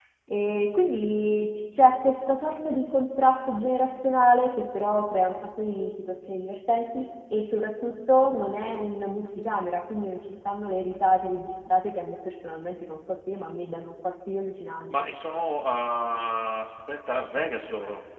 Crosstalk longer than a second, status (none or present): none